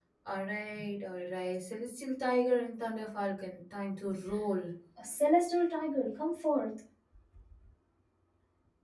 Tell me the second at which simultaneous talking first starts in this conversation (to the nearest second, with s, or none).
none